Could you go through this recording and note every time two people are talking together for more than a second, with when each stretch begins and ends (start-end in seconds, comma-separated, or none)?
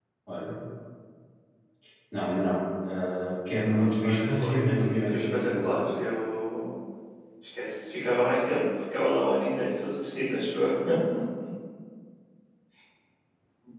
3.7-5.8